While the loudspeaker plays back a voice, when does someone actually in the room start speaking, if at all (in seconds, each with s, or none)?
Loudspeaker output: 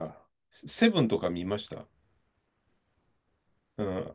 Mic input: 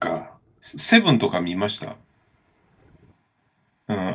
none